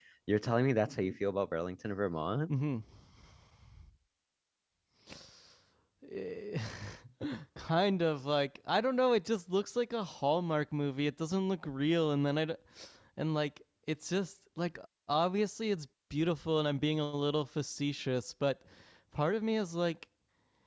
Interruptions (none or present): none